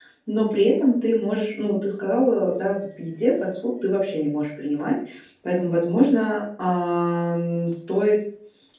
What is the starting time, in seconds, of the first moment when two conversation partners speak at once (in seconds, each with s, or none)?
none